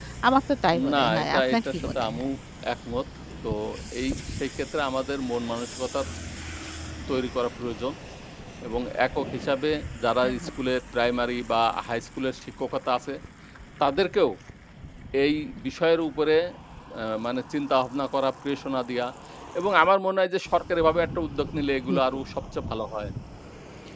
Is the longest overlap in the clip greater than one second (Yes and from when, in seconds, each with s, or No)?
Yes, from 0.9 s